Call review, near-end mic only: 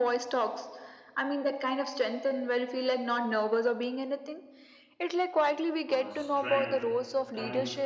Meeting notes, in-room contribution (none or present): present